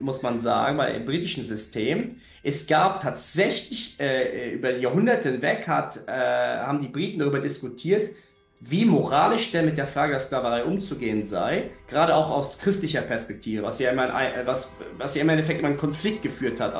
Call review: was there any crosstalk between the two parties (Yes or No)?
No